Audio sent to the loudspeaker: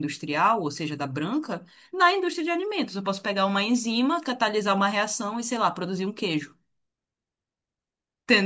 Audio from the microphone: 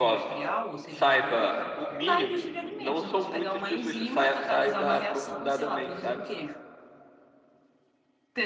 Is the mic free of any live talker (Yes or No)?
No